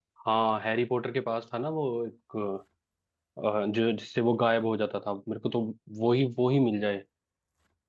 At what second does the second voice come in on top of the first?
none

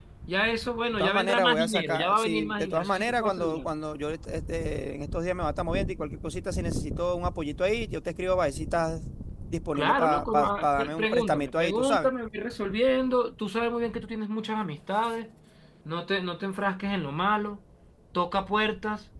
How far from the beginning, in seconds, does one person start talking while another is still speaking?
0.9 s

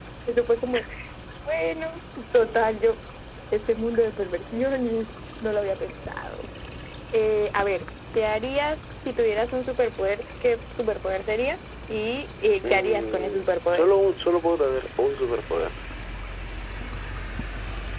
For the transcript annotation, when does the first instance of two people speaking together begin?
12.6 s

